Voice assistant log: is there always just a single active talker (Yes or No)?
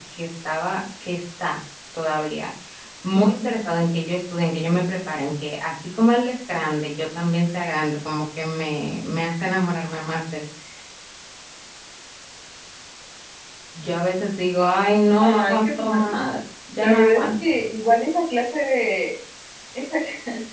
No